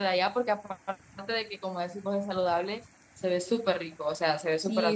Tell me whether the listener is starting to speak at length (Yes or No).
Yes